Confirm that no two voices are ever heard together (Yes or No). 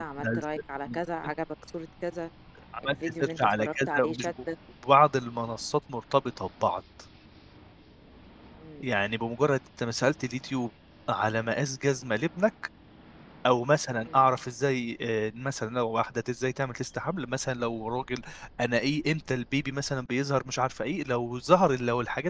No